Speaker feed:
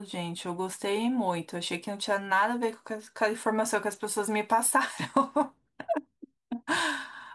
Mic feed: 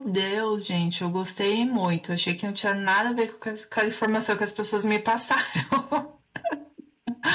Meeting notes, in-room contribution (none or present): none